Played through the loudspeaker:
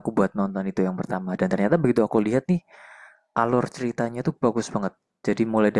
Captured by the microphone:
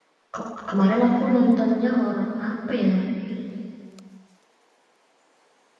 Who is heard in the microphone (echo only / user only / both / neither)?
user only